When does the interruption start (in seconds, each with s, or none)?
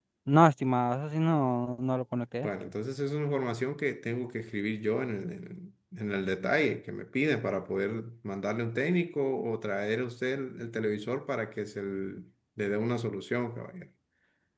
none